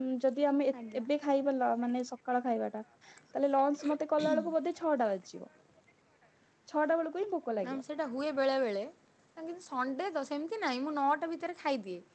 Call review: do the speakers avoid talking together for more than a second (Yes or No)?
Yes